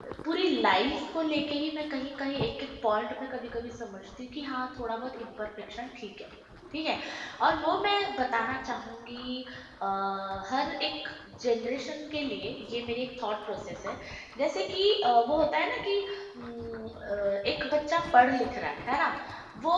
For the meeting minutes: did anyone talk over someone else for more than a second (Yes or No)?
No